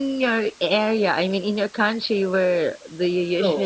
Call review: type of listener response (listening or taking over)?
taking over